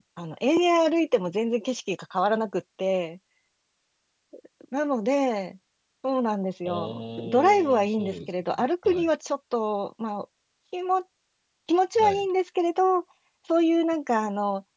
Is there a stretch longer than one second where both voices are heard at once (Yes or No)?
Yes